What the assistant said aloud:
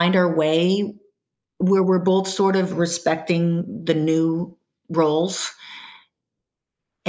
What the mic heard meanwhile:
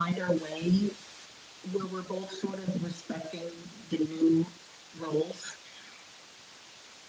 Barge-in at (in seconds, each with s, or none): none